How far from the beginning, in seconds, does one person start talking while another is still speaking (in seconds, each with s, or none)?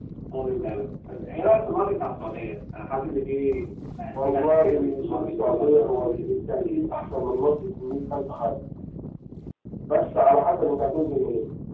4.1 s